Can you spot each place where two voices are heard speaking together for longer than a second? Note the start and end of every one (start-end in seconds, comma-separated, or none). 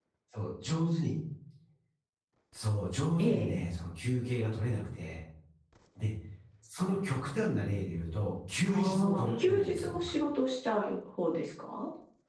8.7-10.2